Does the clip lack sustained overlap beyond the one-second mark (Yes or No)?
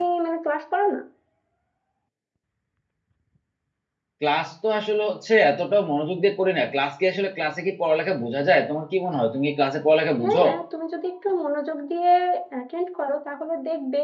Yes